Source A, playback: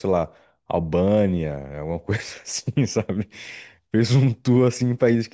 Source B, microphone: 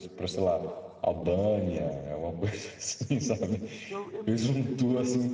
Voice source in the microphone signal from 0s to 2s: echo only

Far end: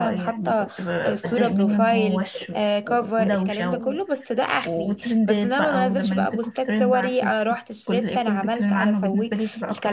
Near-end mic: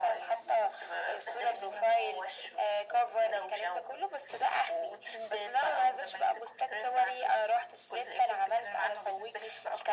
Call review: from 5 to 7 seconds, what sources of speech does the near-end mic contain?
echo only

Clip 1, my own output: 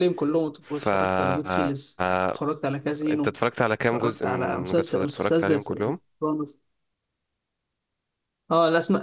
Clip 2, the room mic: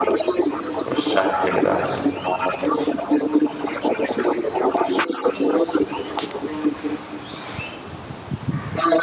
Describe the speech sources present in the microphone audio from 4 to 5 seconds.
echo only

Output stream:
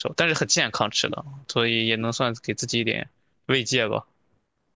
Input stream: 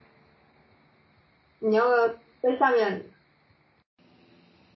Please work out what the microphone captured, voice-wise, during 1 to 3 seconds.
user only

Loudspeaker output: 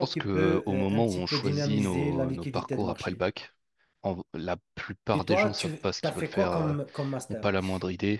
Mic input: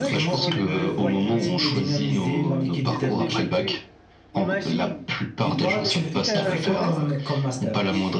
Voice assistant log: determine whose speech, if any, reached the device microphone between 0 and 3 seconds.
both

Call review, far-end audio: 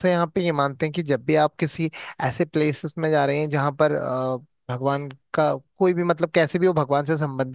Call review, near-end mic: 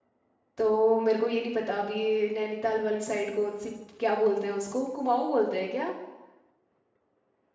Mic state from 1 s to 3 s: user only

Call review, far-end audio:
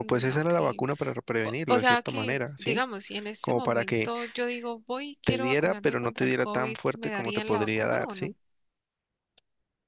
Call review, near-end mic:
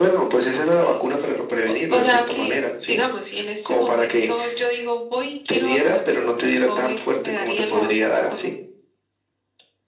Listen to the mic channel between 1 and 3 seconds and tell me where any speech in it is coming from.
echo only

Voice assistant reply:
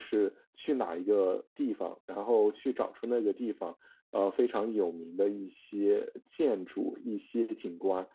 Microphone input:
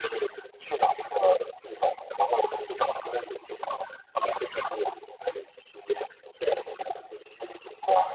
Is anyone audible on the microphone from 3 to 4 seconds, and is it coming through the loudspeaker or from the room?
echo only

